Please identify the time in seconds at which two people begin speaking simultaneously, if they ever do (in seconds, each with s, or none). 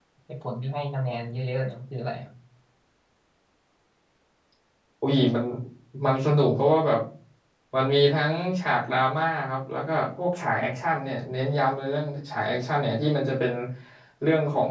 none